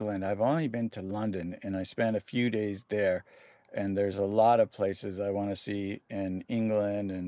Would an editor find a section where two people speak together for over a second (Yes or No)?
No